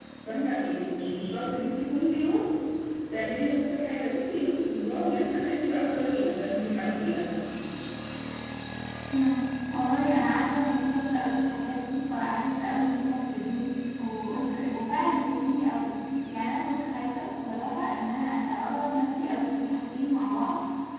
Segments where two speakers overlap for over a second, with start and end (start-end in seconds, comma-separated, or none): none